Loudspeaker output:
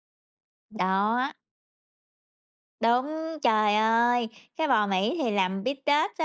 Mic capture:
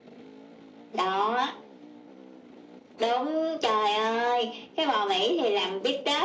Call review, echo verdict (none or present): present